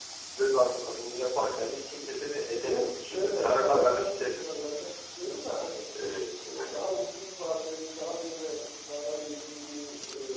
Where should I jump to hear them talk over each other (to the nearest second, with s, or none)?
3 s